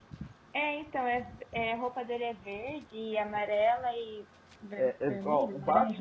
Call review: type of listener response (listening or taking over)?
taking over